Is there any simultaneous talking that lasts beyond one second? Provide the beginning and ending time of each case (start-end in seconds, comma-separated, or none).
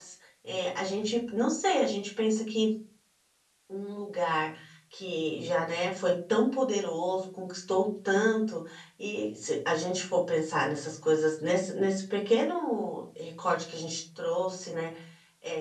none